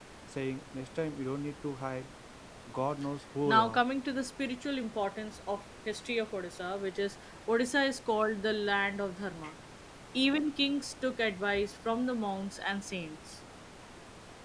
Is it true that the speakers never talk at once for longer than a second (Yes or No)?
Yes